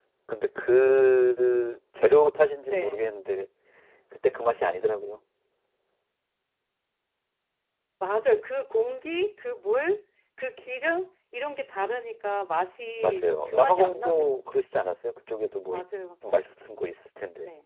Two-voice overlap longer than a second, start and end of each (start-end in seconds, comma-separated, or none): 13.0-14.4